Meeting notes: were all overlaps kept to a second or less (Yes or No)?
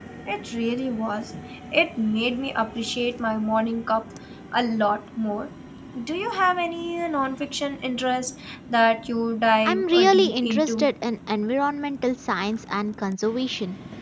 No